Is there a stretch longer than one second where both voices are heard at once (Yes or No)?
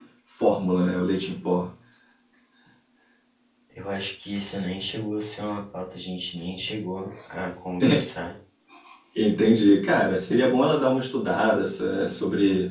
No